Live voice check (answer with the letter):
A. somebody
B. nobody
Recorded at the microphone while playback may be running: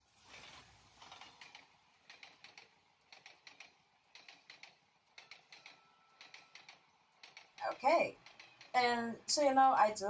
A